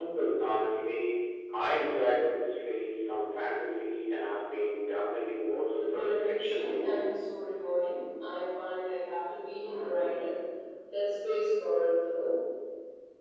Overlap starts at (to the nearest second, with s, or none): 6 s